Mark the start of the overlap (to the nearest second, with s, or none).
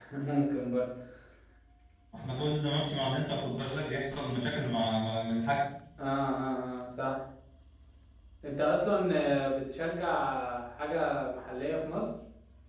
none